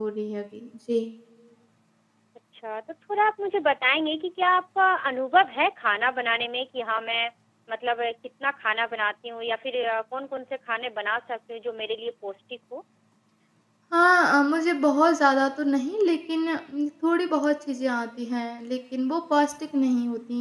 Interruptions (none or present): none